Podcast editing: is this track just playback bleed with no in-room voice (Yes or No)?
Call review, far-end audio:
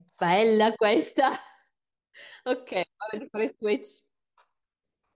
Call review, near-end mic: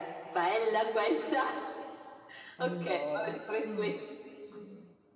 No